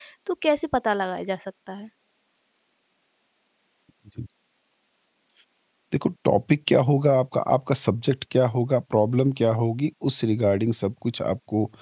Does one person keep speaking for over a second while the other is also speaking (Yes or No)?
No